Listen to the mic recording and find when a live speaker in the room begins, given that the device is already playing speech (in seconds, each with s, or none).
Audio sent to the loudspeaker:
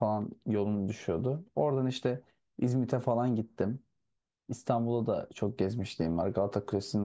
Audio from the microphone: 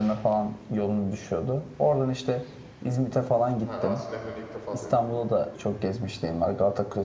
3.6 s